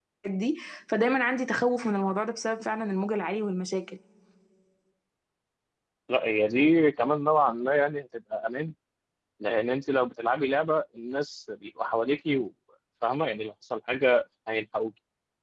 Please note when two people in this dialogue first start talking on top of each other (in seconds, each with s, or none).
none